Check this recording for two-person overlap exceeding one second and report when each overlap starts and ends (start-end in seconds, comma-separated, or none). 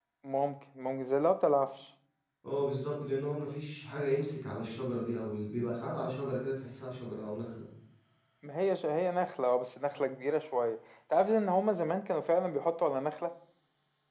none